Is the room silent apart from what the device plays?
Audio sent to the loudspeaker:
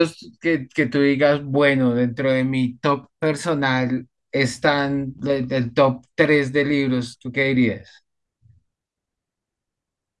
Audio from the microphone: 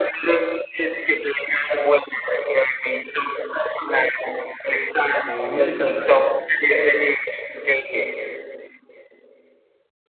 No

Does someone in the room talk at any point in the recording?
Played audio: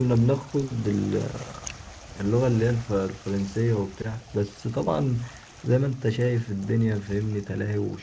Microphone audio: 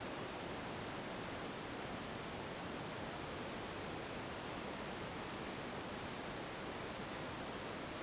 No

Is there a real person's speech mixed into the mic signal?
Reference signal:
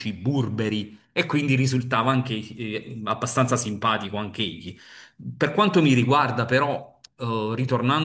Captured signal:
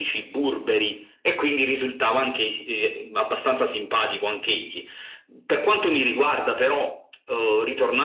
No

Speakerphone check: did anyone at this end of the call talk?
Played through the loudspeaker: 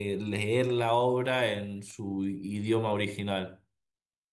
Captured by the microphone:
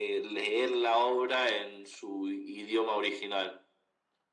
No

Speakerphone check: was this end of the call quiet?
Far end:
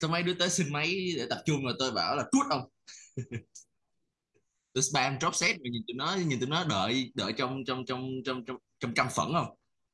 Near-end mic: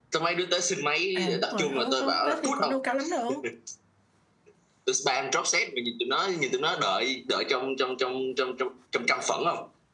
No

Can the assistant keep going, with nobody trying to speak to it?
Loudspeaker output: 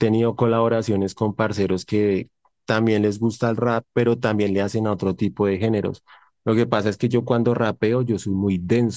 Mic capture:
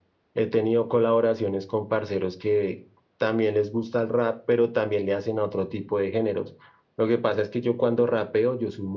Yes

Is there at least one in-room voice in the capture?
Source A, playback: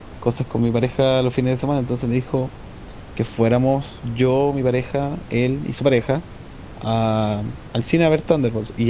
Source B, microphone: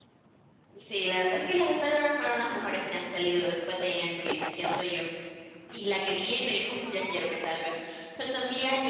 Yes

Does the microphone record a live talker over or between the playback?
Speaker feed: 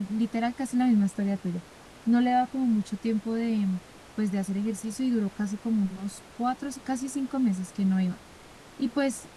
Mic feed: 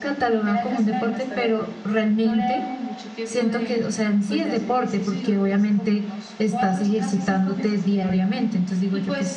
Yes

